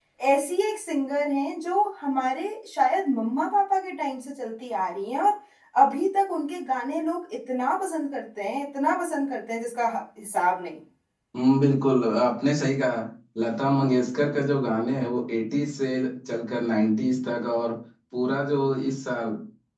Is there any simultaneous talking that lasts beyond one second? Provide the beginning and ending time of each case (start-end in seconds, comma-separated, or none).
none